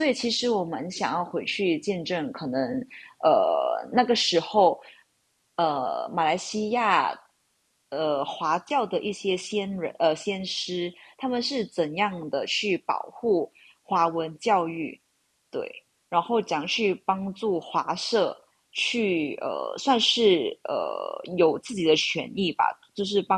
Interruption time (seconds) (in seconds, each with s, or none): none